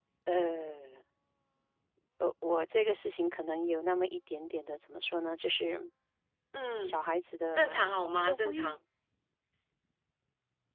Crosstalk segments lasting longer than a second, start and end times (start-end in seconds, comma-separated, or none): 7.5-8.8